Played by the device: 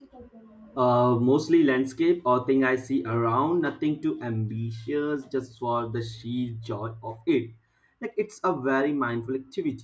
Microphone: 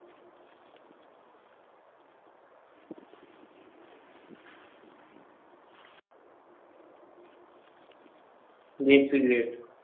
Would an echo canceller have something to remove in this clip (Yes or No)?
No